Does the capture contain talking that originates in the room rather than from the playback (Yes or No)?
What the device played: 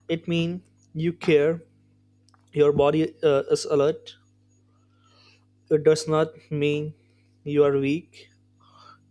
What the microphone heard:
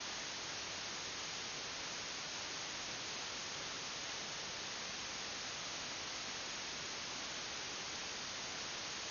No